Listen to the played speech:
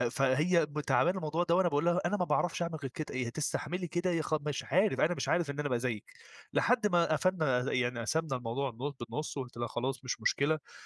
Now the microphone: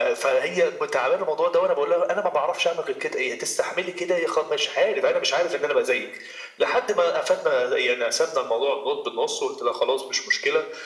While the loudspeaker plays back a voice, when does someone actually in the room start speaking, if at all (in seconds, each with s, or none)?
none